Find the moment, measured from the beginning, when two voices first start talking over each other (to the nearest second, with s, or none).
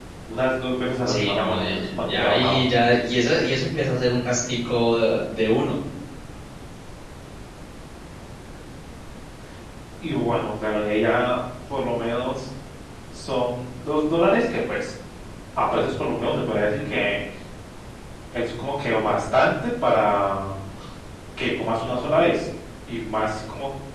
1 s